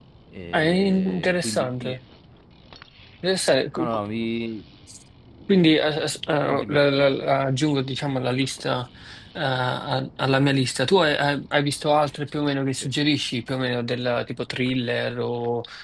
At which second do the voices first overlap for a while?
0.5 s

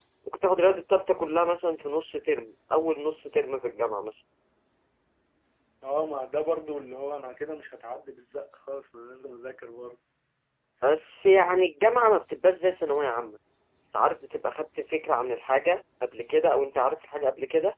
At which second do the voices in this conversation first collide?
none

